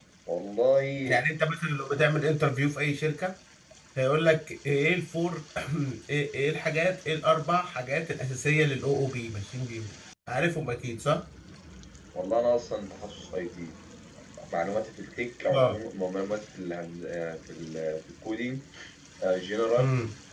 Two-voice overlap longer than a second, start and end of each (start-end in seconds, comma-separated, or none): none